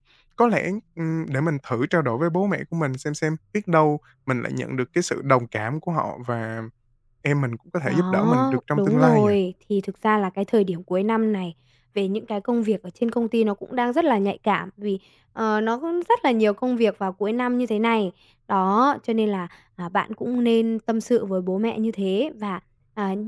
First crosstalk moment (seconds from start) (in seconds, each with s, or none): 7.8 s